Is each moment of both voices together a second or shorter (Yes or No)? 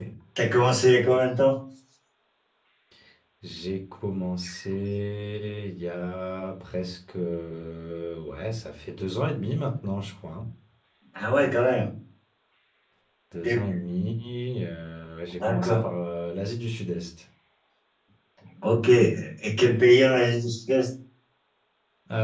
Yes